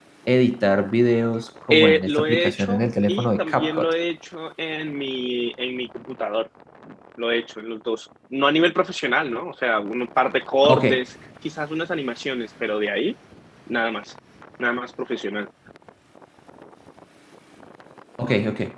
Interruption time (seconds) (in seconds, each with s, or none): 1.7 s